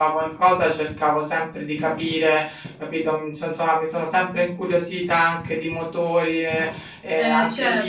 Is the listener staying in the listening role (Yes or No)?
Yes